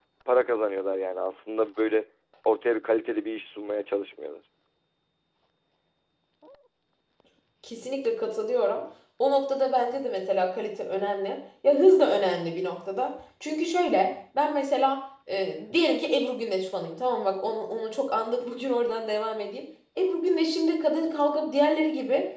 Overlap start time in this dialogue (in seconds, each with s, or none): none